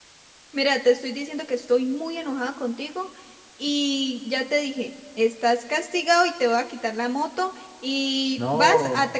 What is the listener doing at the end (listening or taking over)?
listening